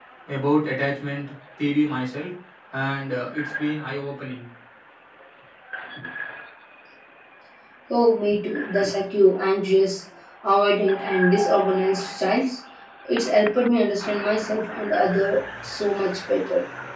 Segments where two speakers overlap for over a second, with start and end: none

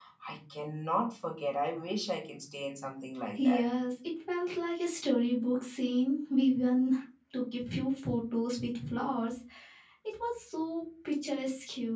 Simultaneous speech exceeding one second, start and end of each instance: none

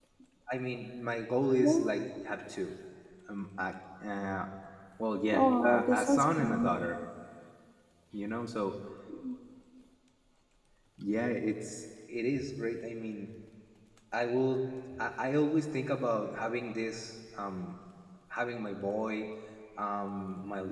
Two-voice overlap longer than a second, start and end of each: 5.3-6.7

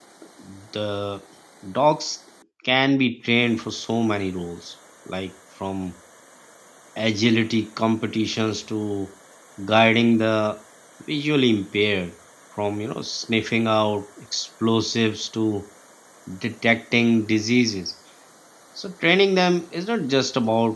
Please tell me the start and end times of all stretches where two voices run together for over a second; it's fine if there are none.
none

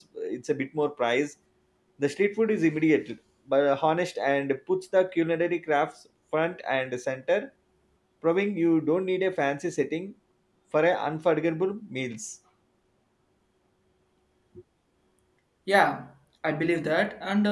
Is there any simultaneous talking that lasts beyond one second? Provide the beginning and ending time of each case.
none

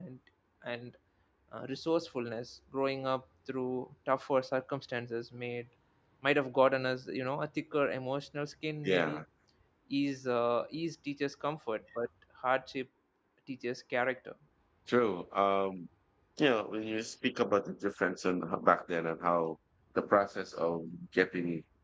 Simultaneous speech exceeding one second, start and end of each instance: none

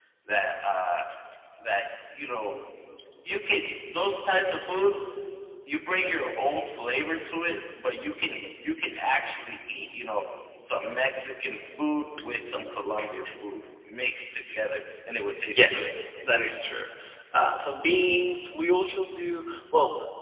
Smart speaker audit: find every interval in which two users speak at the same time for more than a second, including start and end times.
none

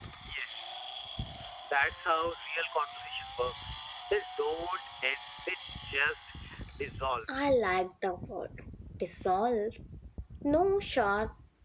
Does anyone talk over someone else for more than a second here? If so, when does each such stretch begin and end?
none

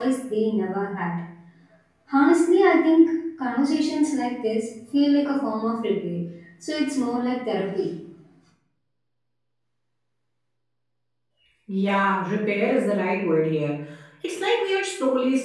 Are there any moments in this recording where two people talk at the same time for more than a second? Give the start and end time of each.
none

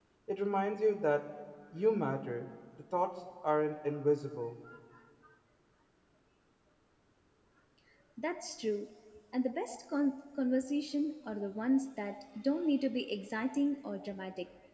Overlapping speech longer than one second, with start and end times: none

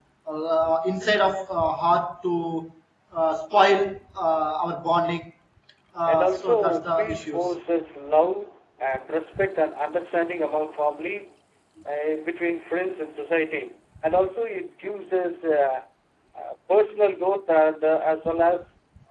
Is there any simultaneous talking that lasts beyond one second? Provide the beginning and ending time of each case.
6.0-7.5

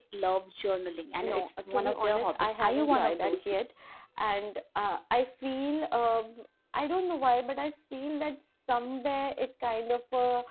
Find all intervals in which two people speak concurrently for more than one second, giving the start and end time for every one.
1.2-3.5

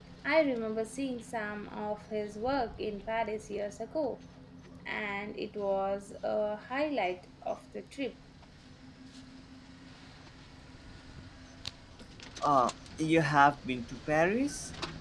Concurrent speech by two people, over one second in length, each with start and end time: none

